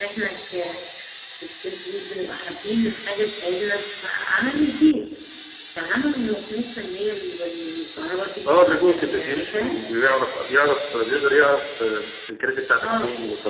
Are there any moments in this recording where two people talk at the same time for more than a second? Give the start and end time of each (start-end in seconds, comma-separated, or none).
8.5-9.8